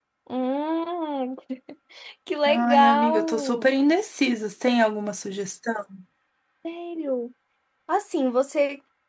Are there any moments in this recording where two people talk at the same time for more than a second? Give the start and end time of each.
2.5-3.7

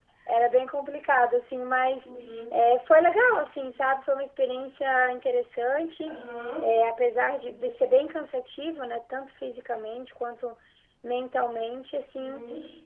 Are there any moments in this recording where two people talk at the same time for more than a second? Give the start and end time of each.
none

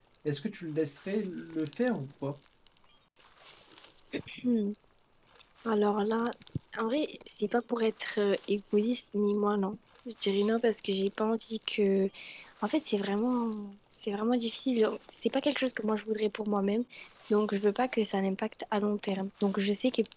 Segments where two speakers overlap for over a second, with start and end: none

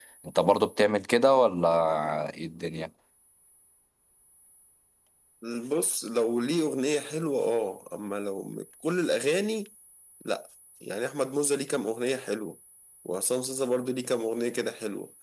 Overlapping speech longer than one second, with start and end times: none

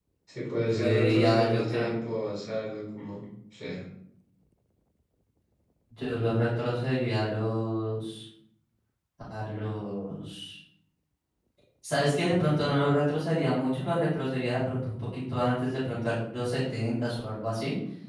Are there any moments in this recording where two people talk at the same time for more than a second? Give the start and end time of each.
0.6-1.9

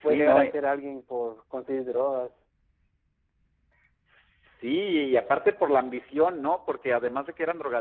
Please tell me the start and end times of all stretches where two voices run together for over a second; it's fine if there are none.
none

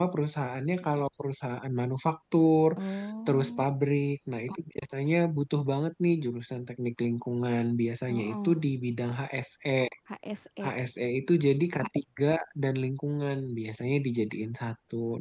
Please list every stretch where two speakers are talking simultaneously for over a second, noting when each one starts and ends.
none

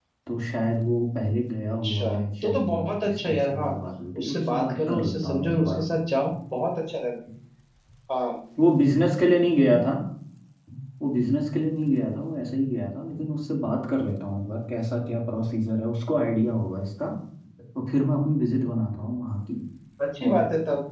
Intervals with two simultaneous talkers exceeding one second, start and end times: 1.8-3.7, 4.2-5.8

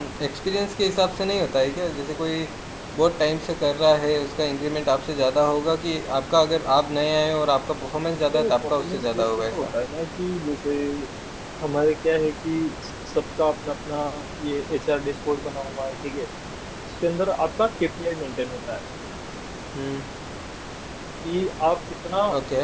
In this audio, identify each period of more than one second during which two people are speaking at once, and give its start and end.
8.3-9.7

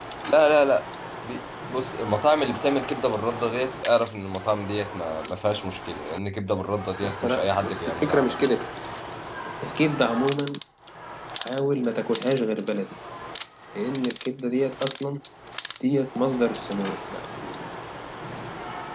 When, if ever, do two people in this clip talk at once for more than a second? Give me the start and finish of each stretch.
7.0-8.3

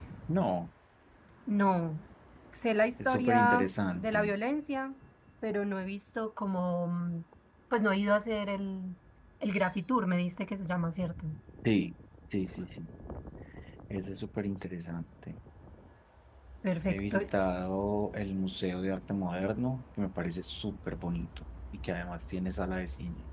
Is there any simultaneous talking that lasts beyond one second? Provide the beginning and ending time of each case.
3.0-4.3

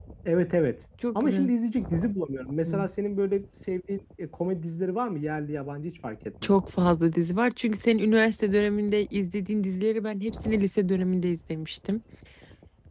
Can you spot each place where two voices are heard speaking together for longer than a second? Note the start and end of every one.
none

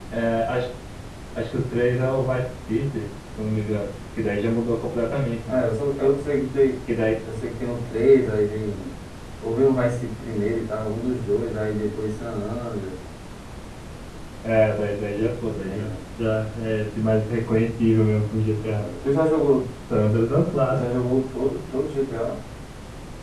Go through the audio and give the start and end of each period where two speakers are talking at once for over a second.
none

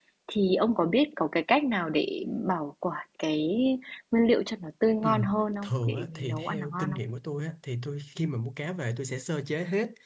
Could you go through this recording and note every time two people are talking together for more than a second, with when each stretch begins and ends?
5.6-7.0

